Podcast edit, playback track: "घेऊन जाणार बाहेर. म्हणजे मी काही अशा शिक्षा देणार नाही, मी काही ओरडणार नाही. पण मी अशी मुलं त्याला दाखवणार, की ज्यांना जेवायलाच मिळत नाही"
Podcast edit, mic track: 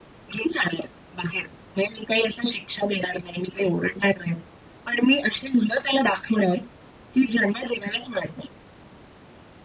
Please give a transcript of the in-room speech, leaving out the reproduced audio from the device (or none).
none